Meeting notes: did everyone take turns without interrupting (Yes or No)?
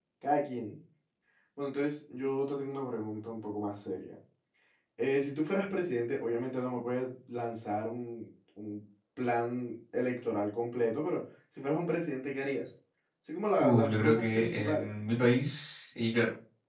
No